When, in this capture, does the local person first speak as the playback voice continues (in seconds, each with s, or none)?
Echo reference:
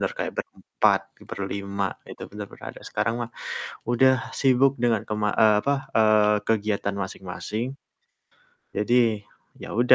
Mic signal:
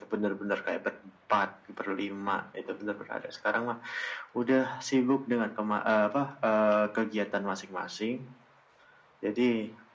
none